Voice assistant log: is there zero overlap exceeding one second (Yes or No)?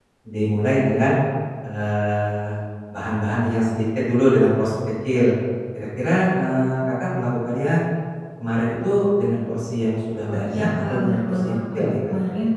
No